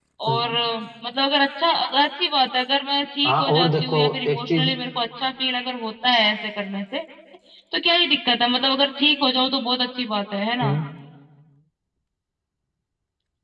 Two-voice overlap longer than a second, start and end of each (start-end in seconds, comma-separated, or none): 3.2-4.7